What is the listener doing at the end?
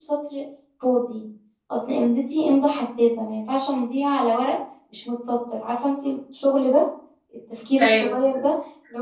listening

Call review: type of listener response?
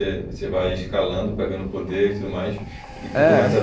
listening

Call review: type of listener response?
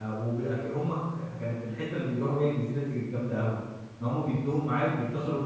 listening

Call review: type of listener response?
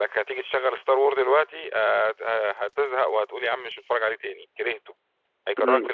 taking over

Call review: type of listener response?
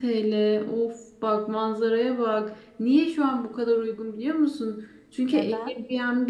listening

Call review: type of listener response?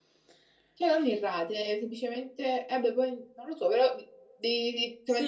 taking over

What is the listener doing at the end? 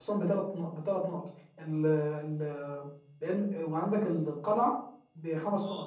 listening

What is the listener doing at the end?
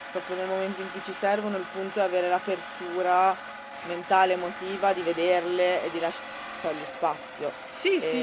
taking over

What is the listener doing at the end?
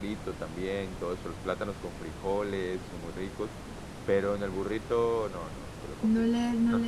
taking over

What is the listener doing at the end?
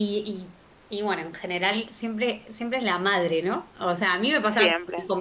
listening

